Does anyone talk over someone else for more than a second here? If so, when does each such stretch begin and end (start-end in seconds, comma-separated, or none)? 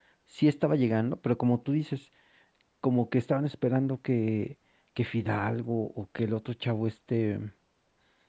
none